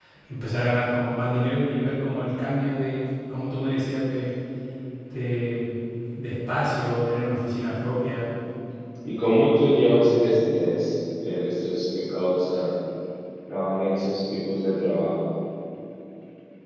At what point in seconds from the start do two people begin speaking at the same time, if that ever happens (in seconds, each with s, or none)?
none